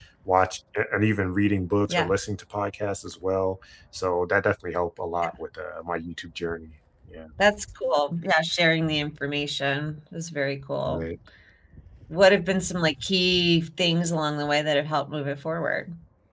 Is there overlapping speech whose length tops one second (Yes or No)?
No